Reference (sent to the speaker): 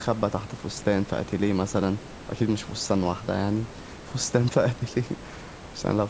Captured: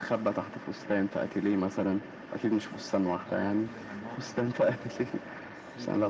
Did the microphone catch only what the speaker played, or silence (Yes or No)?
No